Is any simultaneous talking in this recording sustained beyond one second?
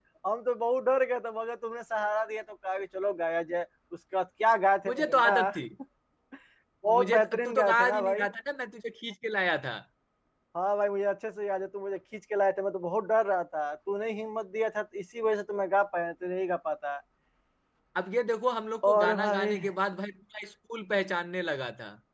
Yes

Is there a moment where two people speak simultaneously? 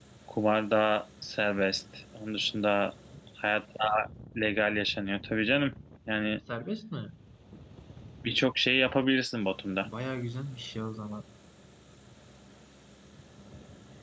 No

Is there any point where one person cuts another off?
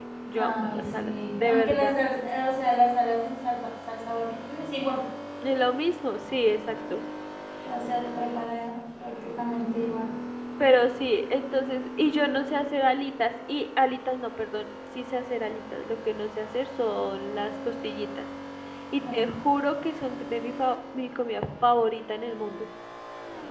Yes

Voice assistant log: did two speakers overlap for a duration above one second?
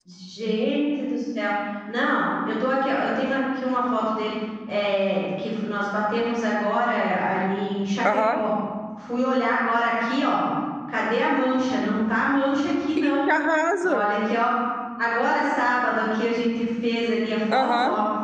No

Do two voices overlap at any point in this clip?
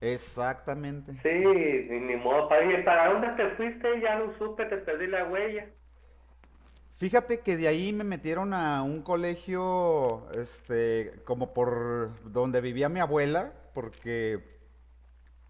No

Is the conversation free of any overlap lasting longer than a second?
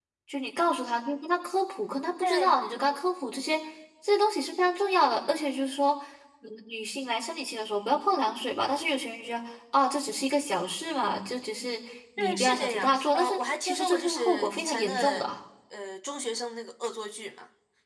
No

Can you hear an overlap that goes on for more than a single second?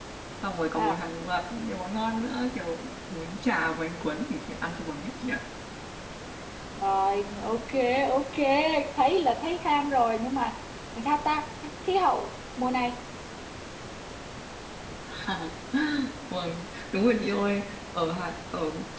No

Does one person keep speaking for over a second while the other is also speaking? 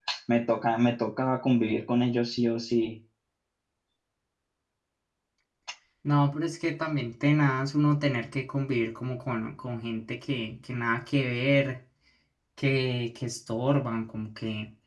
No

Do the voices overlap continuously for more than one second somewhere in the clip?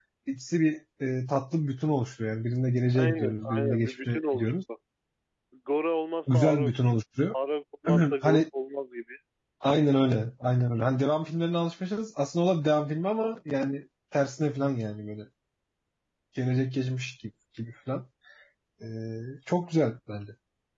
Yes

